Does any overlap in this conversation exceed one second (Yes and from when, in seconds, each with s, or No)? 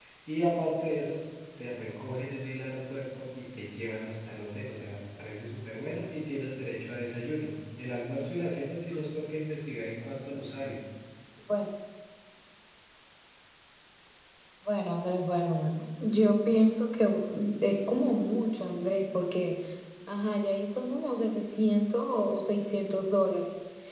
No